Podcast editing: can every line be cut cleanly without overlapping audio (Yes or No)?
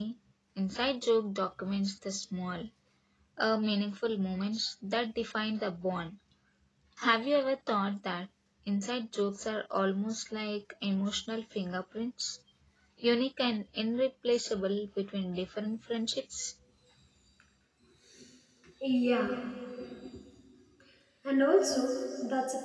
Yes